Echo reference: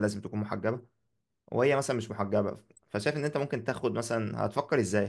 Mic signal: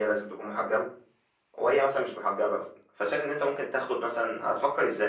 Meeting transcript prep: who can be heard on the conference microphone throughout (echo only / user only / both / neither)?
echo only